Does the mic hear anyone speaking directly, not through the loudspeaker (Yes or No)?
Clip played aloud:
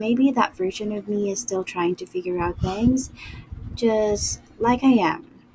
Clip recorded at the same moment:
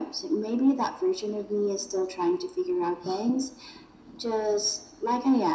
No